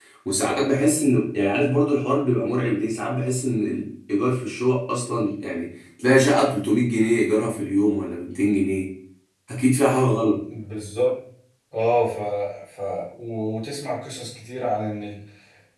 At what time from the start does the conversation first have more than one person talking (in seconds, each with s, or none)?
none